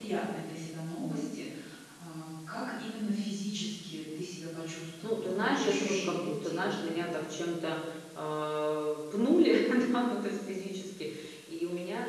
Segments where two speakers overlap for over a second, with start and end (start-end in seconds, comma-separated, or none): 5.0-7.2